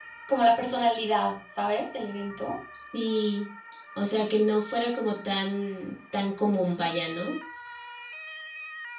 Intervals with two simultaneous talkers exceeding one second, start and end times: none

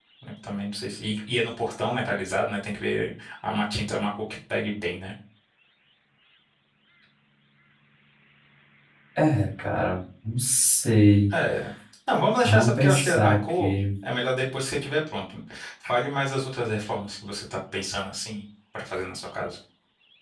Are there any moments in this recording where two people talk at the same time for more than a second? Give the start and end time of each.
12.4-13.8

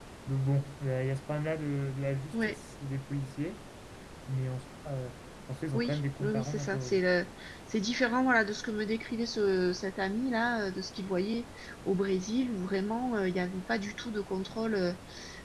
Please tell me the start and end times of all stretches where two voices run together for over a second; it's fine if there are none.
5.7-7.0

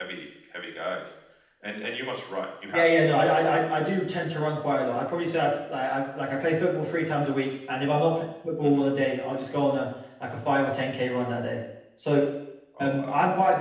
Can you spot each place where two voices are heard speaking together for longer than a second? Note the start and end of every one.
none

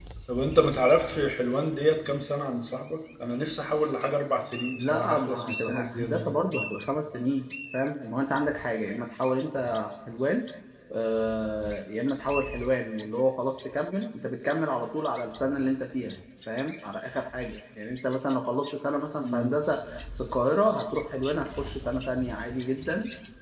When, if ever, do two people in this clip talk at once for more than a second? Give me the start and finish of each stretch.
4.8-6.4

